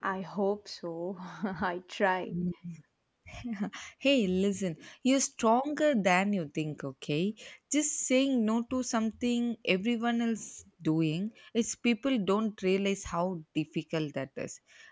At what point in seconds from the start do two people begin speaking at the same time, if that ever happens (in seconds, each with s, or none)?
none